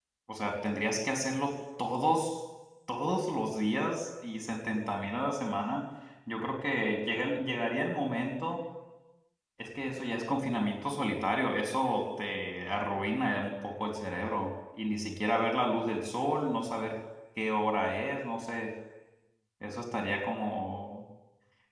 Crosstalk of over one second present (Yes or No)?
No